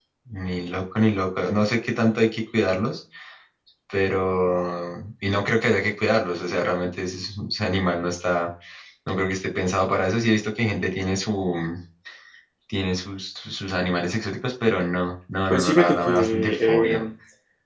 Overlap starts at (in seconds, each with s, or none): 15.5 s